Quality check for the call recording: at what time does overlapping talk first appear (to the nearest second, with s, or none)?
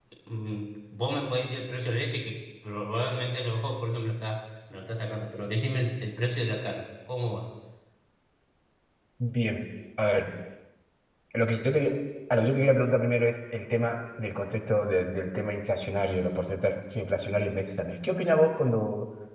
none